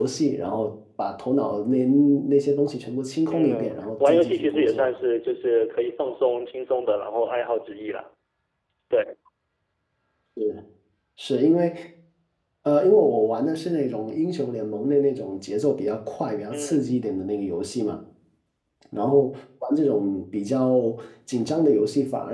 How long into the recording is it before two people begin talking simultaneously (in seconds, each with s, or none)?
3.3 s